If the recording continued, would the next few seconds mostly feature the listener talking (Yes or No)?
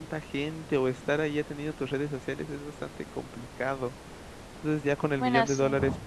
No